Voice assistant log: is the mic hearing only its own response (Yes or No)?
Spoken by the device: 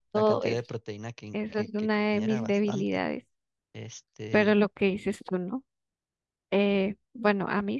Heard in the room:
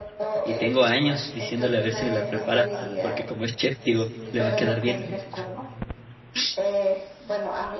No